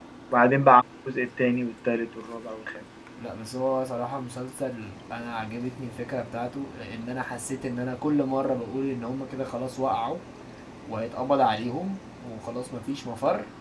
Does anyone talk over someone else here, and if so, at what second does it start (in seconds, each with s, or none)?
none